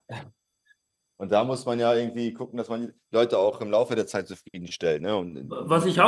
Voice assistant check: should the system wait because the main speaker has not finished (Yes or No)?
No